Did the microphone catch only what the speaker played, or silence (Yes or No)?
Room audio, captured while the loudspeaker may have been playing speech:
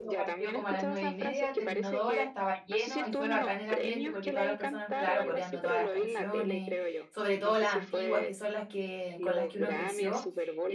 No